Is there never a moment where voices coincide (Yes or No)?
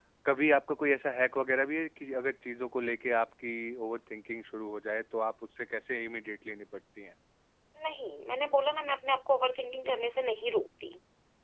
Yes